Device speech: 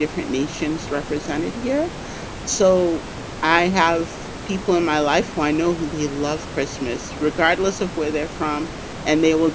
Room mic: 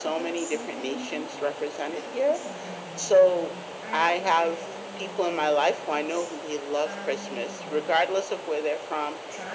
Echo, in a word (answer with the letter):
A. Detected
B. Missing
A